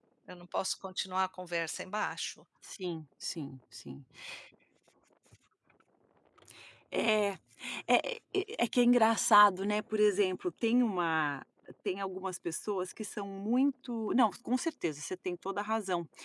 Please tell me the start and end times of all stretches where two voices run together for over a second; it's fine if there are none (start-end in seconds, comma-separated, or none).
none